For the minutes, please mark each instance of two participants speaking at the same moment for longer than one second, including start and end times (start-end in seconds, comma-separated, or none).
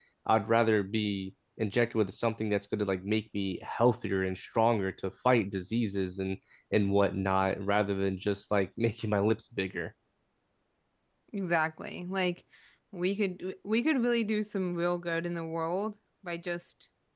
none